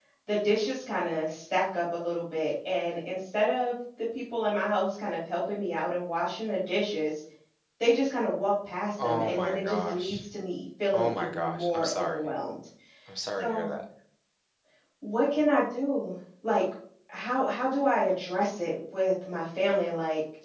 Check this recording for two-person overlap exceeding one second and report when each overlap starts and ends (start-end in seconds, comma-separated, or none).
9.0-10.2, 10.9-12.3